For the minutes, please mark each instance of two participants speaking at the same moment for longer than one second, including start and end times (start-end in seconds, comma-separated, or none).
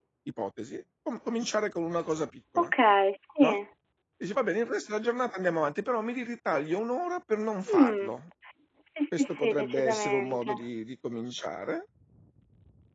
9.2-10.5